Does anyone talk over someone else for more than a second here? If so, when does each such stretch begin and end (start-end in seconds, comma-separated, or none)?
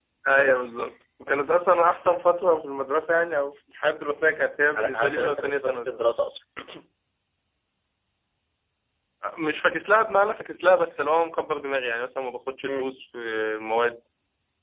4.8-6.1